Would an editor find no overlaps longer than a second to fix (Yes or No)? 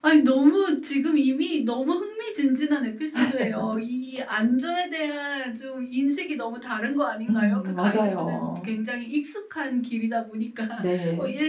No